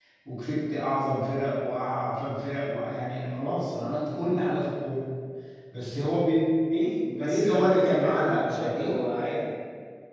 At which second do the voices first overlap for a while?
7 s

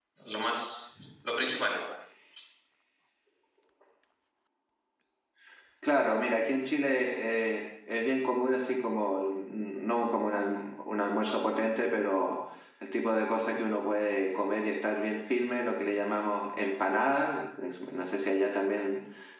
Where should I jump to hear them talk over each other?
none

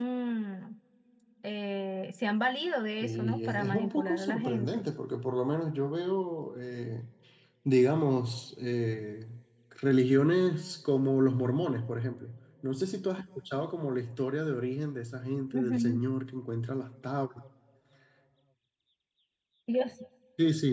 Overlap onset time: 3 s

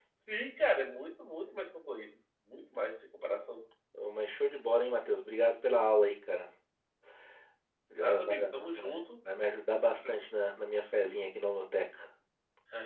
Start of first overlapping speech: 8 s

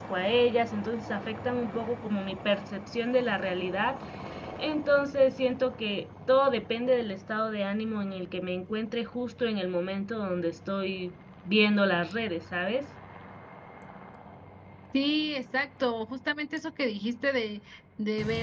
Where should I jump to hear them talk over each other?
none

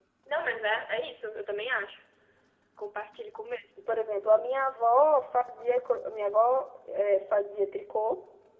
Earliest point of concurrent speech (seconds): none

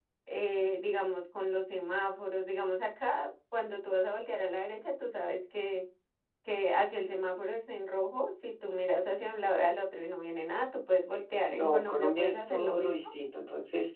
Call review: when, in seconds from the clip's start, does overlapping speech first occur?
12 s

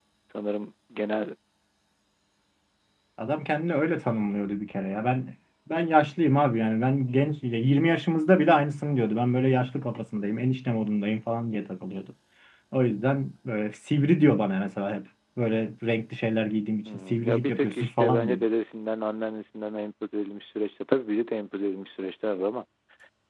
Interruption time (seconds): 17 s

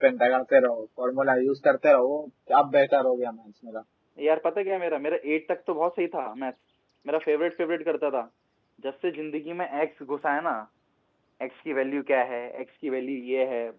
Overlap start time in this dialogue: none

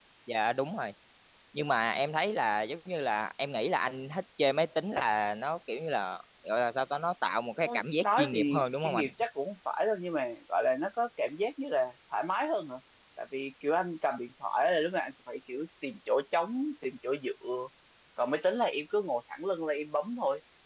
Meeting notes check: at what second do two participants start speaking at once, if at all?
8 s

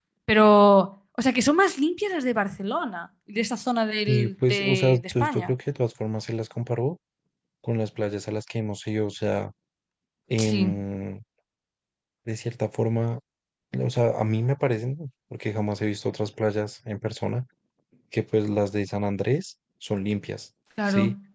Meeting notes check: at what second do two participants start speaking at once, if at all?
4 s

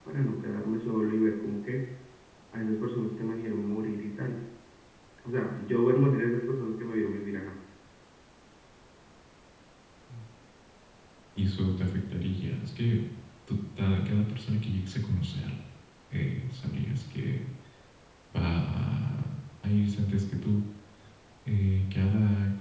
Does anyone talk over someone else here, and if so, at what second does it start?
none

